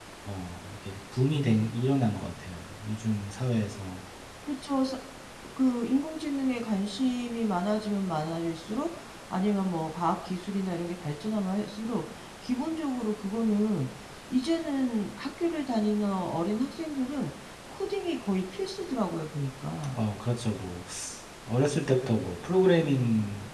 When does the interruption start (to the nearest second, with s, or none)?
none